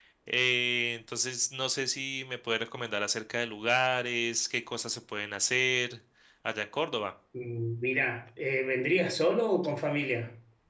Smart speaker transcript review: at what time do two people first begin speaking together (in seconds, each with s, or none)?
none